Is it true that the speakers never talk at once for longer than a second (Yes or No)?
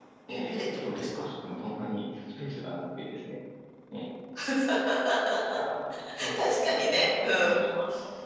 No